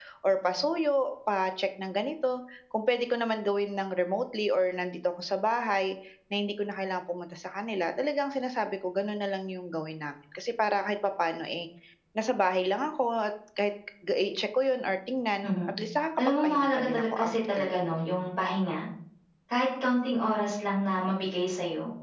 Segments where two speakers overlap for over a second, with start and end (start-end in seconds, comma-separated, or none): 16.2-17.7